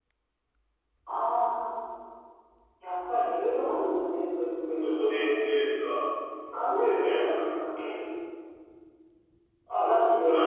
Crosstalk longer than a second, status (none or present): present